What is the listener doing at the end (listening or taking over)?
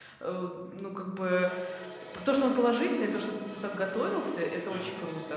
listening